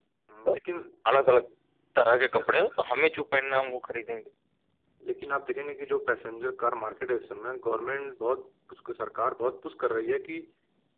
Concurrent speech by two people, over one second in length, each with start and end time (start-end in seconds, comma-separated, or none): none